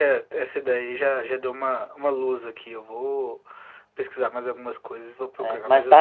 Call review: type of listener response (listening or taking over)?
taking over